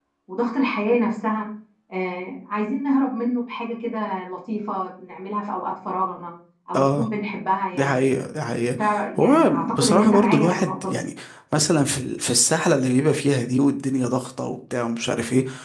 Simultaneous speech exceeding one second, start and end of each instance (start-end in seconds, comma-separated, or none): 9.2-11.0